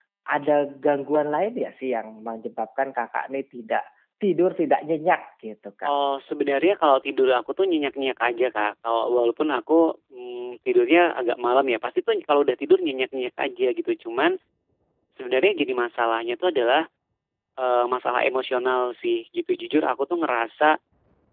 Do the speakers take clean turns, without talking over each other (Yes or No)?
Yes